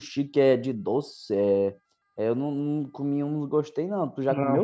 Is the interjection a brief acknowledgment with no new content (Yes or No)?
No